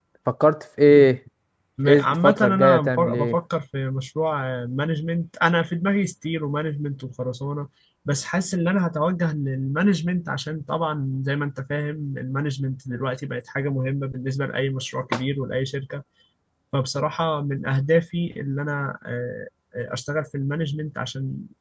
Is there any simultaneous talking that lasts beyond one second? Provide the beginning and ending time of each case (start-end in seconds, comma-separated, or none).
1.8-3.4